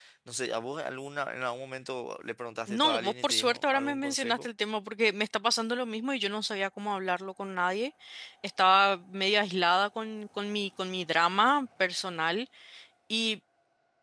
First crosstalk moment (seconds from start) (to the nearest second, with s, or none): 3 s